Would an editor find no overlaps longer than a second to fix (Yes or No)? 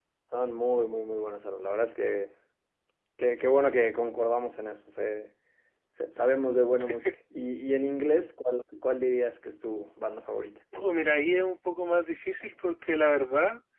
Yes